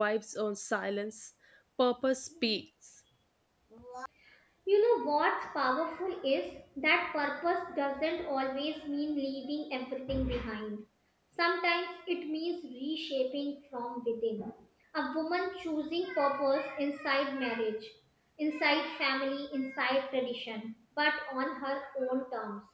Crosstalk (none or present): none